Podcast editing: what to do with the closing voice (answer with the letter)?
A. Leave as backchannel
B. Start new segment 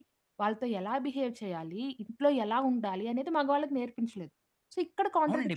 B